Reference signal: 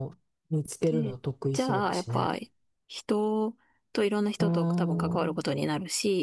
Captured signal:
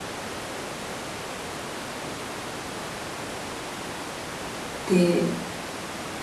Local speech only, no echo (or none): で、